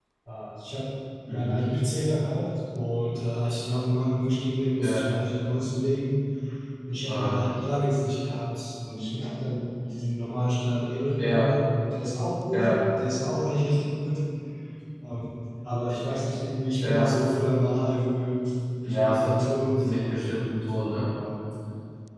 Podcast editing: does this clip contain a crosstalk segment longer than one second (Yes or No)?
Yes